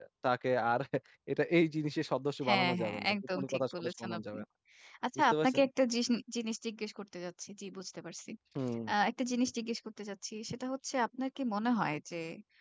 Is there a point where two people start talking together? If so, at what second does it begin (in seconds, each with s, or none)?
2.5 s